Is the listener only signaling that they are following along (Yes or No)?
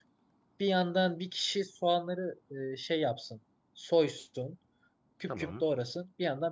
Yes